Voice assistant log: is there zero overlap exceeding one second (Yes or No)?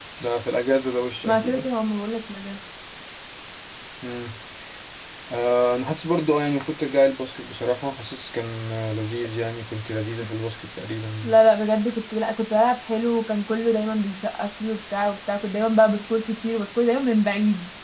Yes